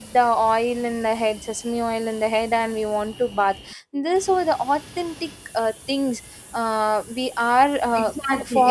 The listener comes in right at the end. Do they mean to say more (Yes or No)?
Yes